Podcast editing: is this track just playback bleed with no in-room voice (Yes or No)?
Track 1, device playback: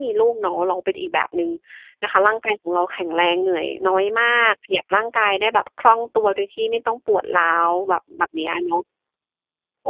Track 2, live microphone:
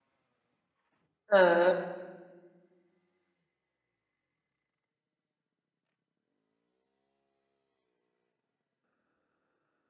No